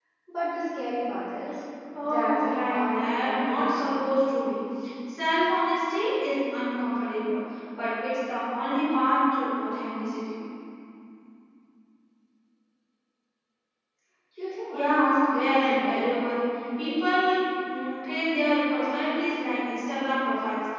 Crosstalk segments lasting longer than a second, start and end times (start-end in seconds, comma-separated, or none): 2.0-4.0, 14.7-16.2